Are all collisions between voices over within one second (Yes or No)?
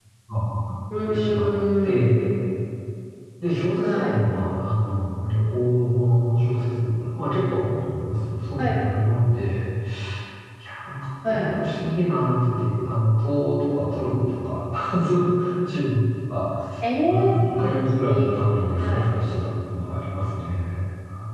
No